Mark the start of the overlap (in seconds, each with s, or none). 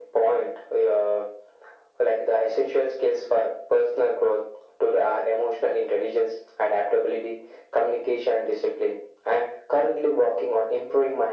none